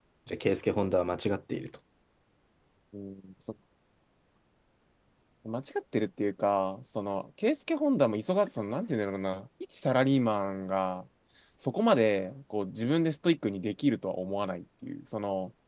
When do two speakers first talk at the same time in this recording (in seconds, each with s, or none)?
none